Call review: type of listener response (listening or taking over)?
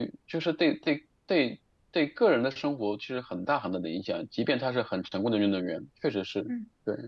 taking over